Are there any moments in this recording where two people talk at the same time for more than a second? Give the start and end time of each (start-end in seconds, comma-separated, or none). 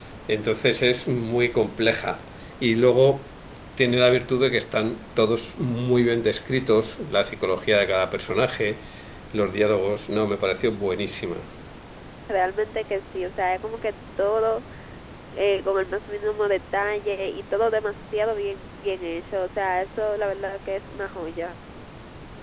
none